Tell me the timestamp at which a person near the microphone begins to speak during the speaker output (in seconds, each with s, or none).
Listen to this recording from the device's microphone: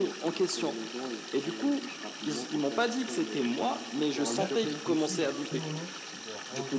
4.1 s